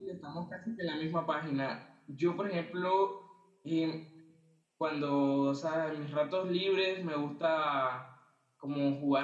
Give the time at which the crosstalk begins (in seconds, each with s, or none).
none